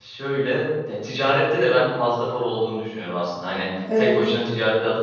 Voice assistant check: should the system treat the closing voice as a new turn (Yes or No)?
No